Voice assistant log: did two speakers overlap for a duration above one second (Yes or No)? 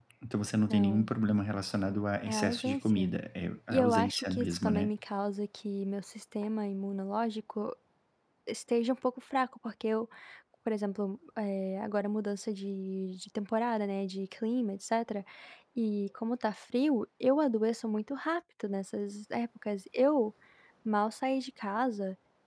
Yes